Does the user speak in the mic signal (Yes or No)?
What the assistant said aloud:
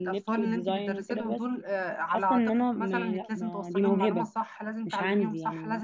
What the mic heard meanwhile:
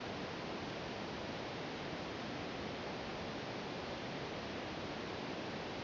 No